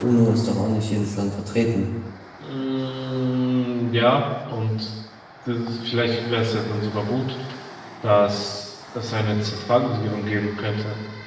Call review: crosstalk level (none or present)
none